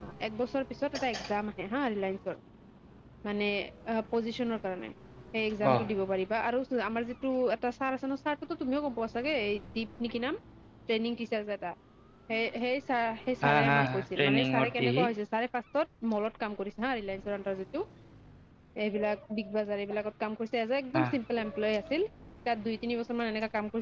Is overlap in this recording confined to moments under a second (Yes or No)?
No